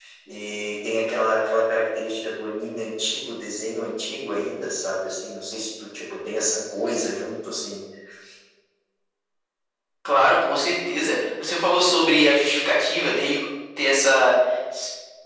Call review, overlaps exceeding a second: none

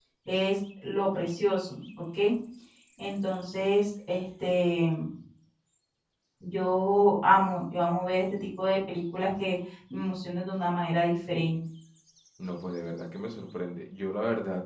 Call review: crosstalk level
none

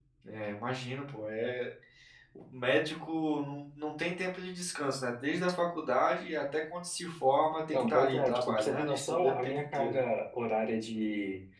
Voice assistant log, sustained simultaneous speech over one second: present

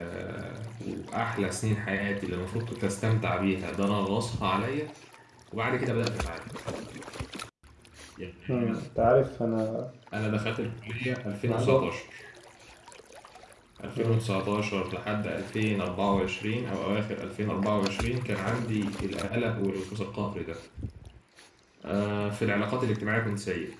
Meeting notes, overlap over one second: none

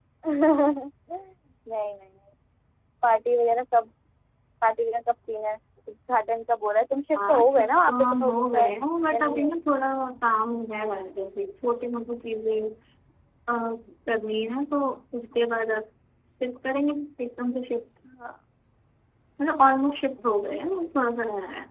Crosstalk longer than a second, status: present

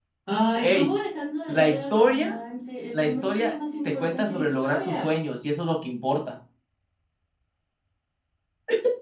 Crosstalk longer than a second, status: present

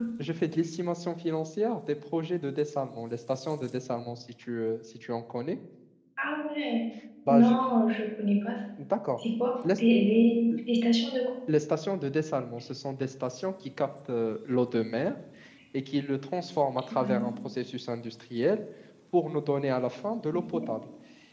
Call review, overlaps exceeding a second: none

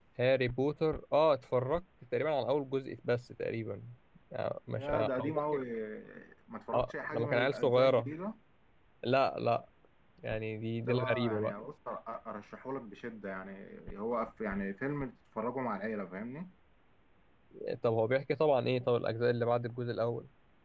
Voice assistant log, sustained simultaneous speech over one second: present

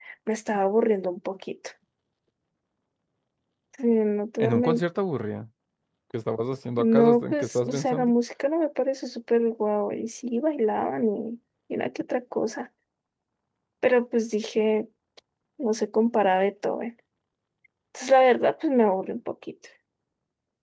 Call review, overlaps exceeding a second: present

